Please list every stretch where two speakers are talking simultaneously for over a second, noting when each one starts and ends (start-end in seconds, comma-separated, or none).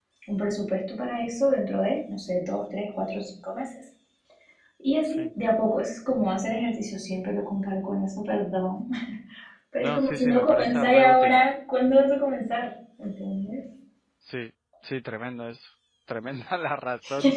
9.8-11.4